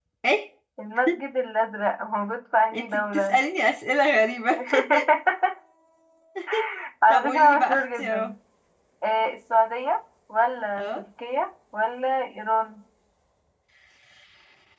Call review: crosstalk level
present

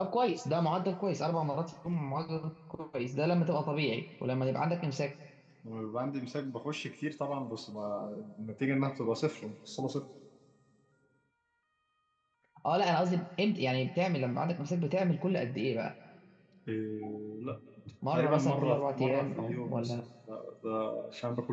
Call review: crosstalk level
present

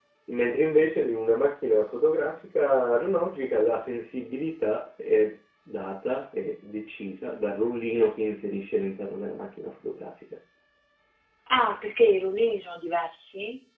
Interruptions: none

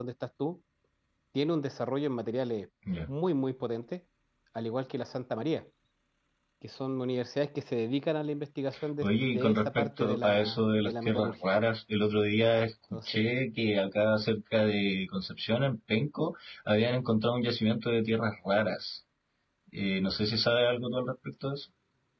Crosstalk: present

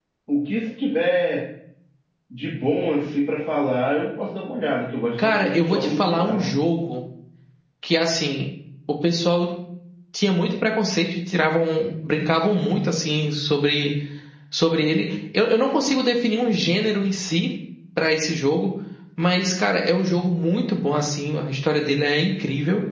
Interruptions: present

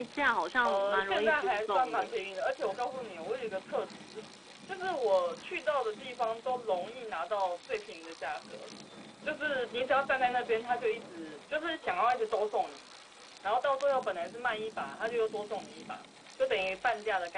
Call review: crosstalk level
present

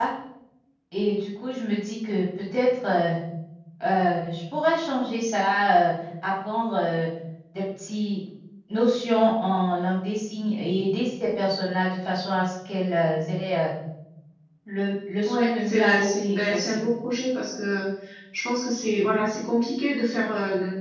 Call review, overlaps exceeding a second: present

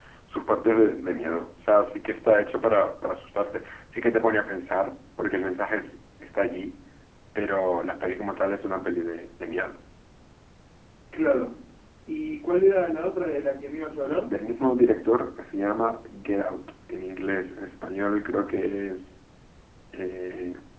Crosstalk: none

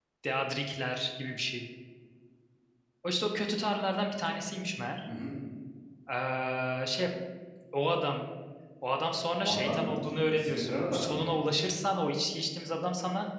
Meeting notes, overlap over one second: present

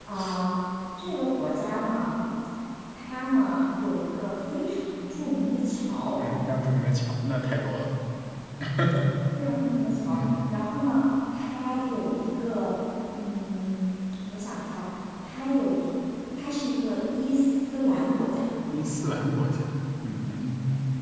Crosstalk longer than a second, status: none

